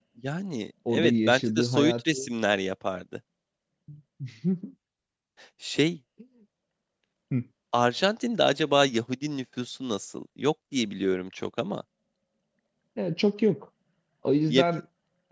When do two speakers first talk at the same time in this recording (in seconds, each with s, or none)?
0.9 s